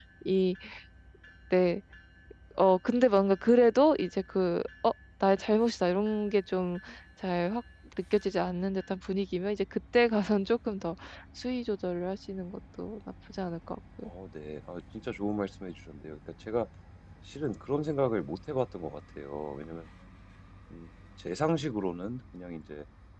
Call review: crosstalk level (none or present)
none